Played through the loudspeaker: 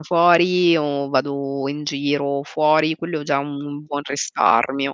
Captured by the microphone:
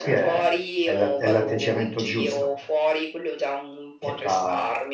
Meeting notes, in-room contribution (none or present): present